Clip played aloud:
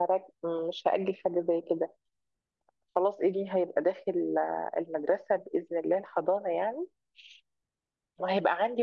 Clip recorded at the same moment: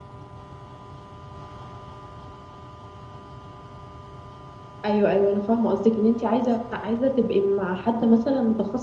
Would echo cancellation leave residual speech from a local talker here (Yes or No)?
Yes